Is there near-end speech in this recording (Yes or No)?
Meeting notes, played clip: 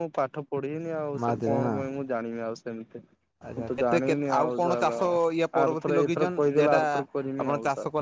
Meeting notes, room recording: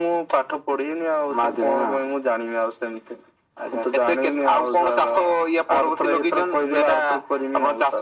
No